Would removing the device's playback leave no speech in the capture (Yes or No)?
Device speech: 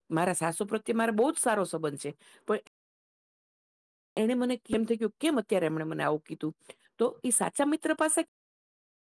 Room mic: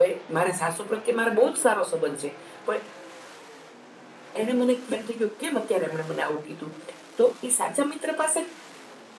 Yes